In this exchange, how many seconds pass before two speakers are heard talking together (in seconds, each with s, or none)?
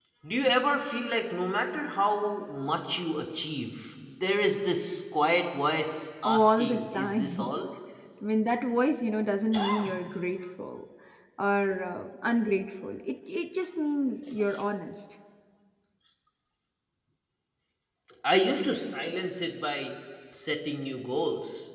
6.2 s